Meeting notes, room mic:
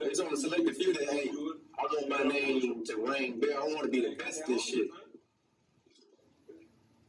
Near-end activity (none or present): none